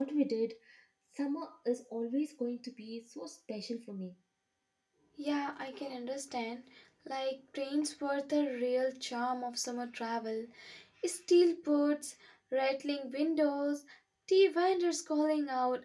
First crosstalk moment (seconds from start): none

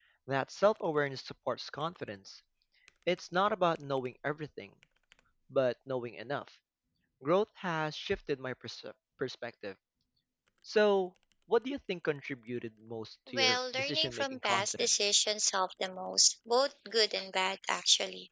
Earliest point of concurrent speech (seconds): 13 s

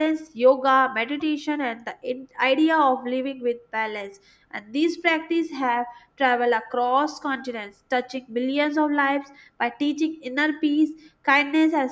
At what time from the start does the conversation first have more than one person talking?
none

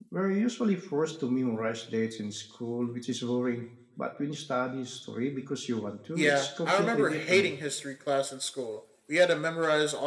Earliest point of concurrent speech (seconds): 6 s

